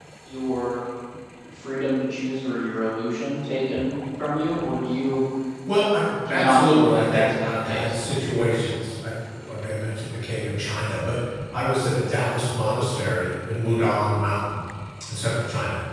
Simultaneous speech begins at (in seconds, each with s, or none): 6.3 s